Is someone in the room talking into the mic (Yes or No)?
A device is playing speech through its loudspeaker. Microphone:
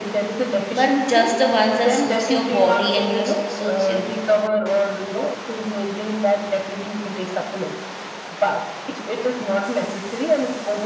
Yes